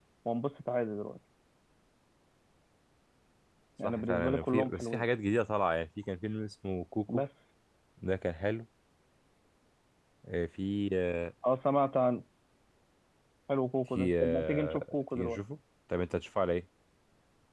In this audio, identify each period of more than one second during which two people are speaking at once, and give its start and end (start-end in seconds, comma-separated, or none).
3.8-5.1, 14.0-15.4